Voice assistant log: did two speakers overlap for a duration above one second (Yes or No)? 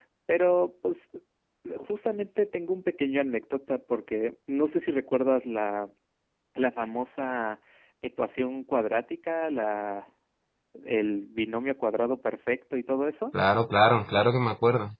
No